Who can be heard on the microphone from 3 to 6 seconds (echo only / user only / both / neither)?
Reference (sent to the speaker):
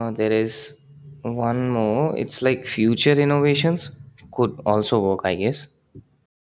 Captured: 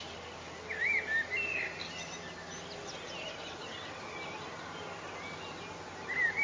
neither